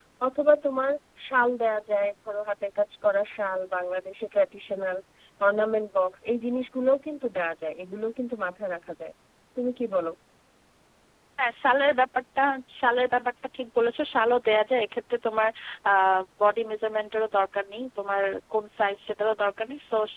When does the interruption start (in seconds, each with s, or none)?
none